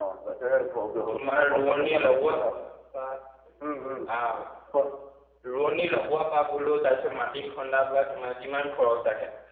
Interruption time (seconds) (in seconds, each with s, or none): 1.1 s